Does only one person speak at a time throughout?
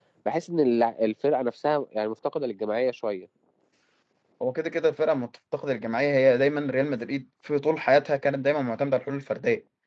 Yes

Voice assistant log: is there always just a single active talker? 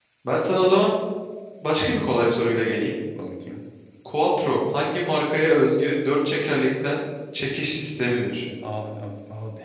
Yes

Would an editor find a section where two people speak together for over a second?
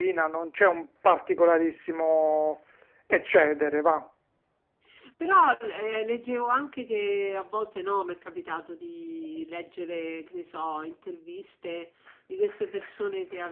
No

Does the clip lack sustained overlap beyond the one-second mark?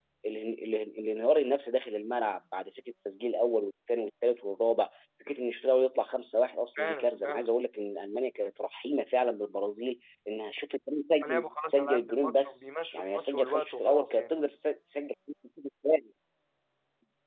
No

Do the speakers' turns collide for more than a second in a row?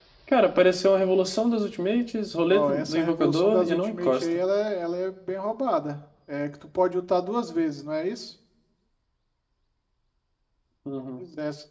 Yes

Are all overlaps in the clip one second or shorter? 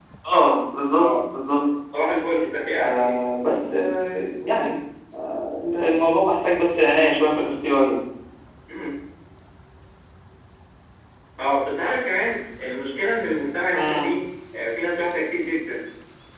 Yes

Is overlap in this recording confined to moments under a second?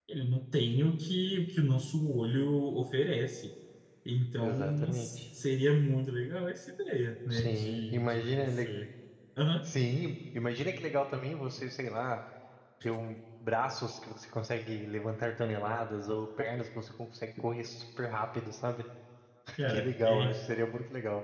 No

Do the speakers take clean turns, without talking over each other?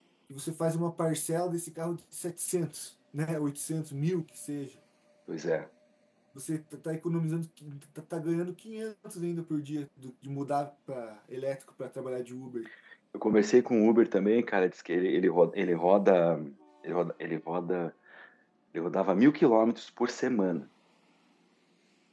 Yes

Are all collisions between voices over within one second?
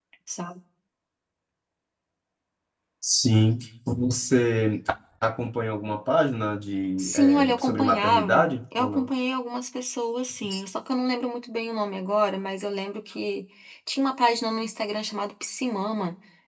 No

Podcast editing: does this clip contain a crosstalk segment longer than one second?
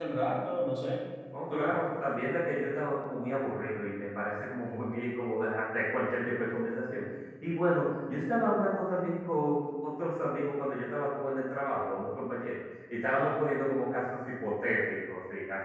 No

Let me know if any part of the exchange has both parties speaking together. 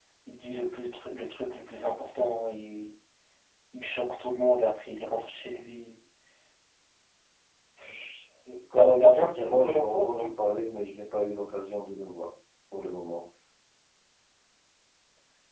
Yes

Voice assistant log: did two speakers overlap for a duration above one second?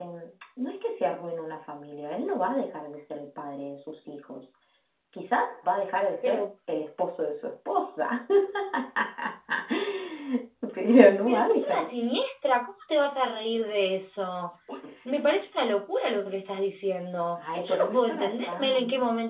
Yes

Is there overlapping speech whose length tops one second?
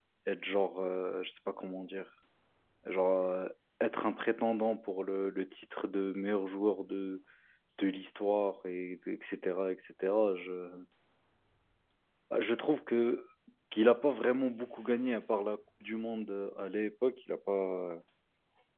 No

